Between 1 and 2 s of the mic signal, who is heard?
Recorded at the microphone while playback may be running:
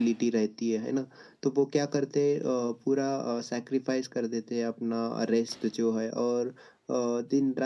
echo only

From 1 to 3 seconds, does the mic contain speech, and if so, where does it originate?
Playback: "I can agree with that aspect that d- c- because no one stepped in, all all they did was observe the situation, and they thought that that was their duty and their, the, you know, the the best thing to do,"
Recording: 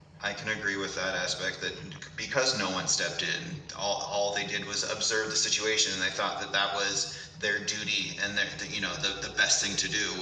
echo only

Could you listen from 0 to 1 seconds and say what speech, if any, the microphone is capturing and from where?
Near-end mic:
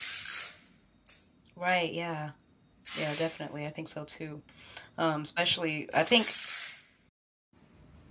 neither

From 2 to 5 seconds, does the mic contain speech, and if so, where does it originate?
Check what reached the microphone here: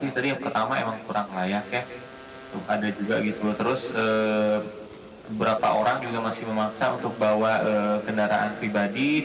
echo only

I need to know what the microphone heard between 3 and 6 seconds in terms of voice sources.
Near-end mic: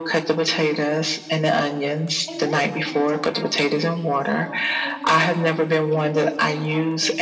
both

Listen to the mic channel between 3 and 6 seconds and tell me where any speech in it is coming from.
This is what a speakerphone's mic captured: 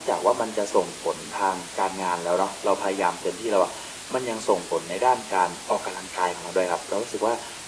echo only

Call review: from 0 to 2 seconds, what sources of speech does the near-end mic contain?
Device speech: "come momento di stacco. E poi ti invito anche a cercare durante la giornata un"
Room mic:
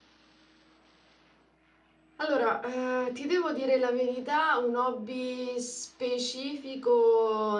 neither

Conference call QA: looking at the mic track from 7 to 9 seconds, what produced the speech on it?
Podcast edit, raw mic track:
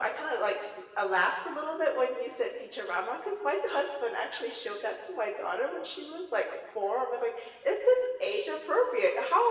echo only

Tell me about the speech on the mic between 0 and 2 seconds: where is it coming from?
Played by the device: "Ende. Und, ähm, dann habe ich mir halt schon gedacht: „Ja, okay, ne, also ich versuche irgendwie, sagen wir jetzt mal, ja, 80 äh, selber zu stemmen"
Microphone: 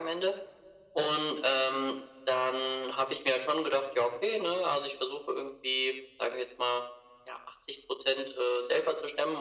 echo only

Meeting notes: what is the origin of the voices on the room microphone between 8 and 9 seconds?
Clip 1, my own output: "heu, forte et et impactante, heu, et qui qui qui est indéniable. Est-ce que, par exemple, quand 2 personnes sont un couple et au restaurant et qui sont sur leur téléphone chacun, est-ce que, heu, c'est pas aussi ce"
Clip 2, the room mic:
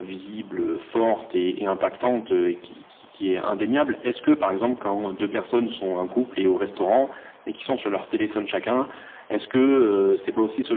echo only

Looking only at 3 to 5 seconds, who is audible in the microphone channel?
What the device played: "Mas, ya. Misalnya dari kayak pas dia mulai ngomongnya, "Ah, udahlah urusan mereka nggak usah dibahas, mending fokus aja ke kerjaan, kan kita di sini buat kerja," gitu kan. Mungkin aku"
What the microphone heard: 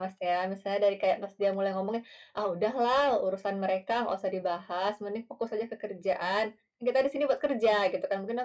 echo only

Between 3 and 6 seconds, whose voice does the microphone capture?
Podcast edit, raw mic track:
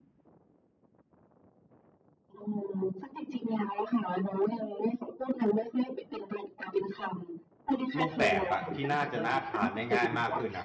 echo only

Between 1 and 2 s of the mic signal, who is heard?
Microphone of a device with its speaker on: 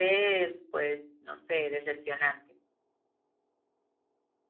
echo only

